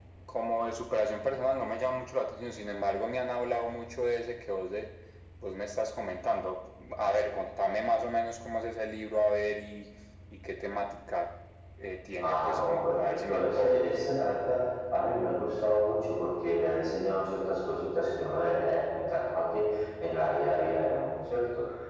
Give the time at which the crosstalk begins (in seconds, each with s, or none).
12.2 s